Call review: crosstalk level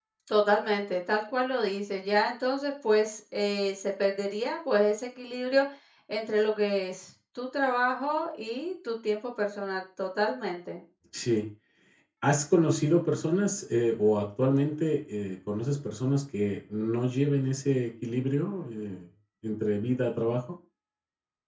none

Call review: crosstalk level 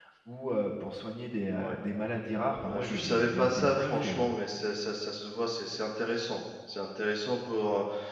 present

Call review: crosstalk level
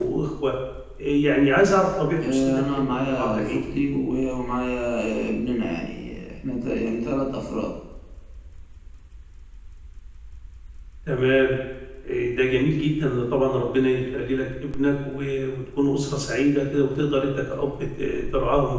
present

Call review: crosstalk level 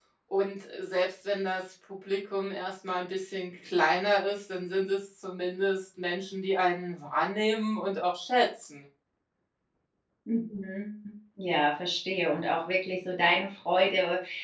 none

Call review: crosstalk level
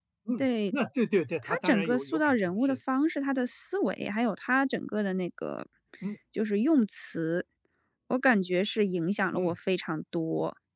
present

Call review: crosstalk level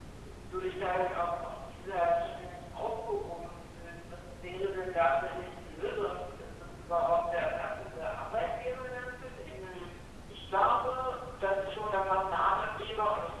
none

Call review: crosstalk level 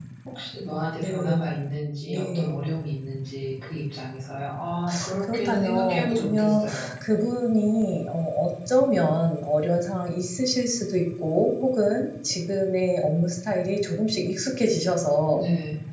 present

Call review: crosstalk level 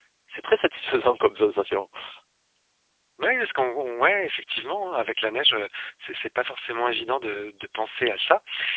none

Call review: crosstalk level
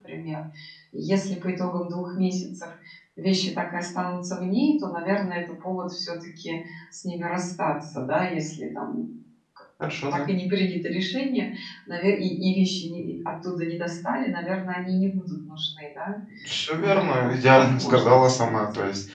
present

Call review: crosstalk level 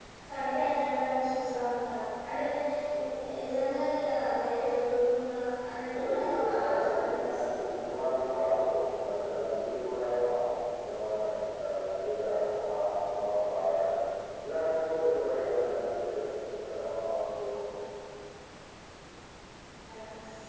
present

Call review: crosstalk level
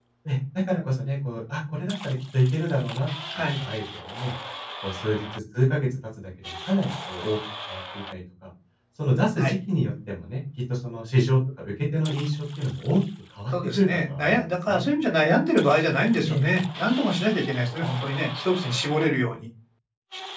present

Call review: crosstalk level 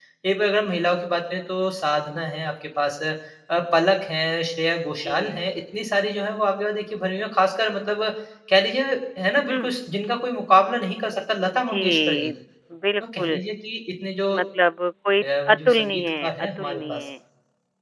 present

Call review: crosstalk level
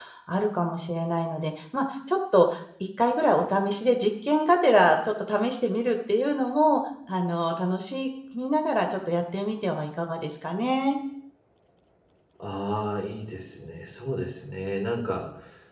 none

